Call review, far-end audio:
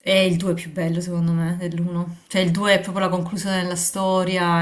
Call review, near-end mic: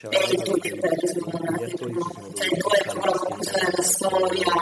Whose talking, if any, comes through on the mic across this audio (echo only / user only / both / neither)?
both